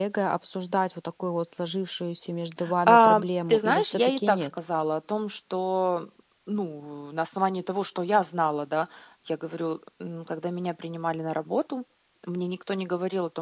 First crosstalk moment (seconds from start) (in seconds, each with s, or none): 2.9 s